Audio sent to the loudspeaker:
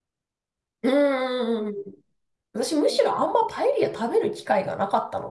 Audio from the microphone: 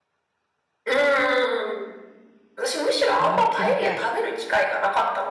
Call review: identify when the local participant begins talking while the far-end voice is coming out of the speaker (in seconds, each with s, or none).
3.2 s